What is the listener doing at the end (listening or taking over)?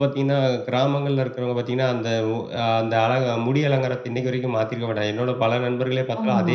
listening